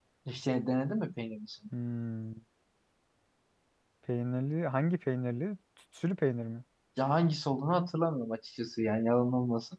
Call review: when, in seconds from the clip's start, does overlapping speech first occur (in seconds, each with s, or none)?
none